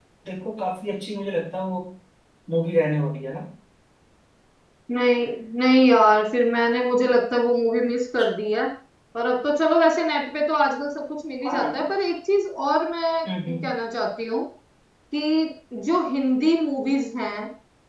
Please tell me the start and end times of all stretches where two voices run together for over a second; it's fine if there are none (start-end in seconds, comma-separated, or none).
none